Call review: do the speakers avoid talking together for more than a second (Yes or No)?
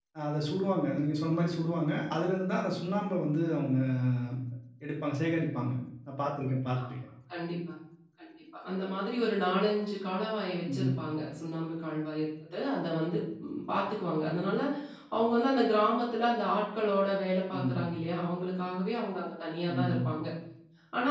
Yes